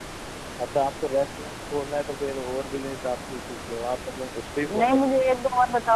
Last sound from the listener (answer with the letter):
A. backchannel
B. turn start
B